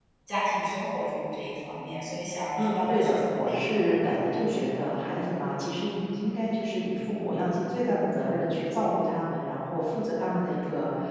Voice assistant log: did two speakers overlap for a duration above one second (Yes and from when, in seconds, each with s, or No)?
Yes, from 2.5 s